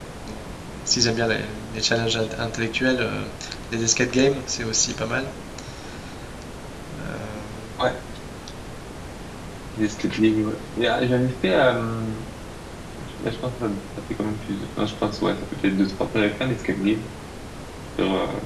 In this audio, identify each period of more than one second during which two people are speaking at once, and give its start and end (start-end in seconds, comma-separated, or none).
none